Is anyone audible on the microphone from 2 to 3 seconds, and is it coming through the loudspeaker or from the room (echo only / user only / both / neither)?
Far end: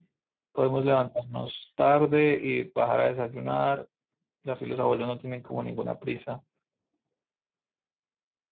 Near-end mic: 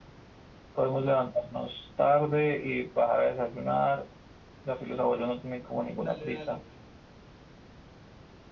echo only